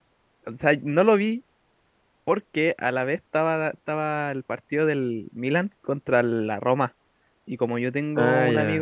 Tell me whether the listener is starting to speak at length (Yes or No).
No